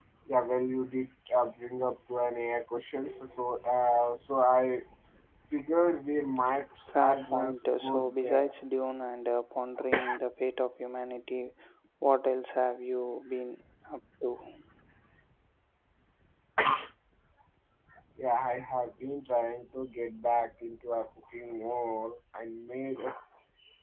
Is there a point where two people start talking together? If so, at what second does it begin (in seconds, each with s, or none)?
6.9 s